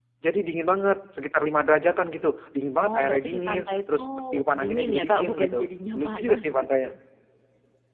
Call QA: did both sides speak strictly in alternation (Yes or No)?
No